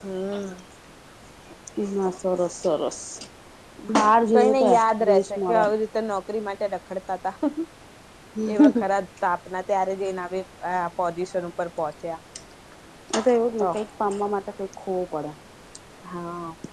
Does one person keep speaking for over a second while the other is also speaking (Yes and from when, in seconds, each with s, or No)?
Yes, from 4.3 s